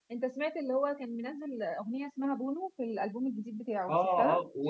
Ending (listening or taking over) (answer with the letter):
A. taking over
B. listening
A